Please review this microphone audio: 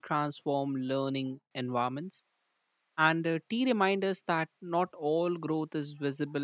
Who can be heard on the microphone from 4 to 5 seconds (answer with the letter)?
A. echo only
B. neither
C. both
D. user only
D